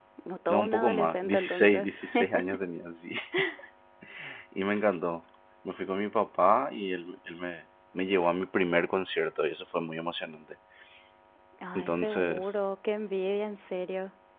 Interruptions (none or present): present